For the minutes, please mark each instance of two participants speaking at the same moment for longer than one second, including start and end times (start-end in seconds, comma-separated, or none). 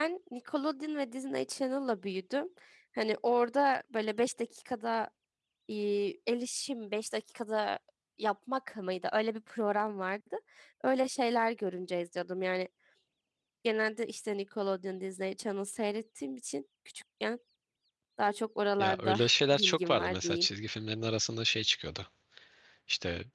18.8-20.5